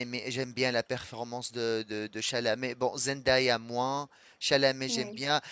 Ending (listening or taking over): listening